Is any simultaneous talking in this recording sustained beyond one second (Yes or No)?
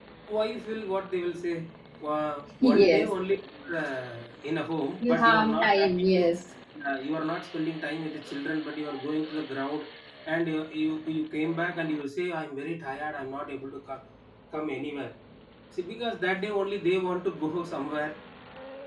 Yes